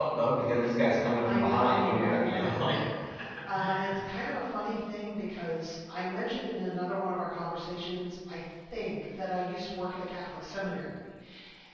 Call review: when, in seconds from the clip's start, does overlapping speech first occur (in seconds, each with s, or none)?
1.2 s